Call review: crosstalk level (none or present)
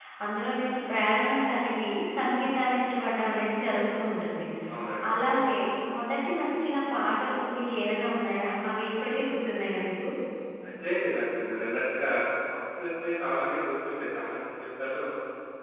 none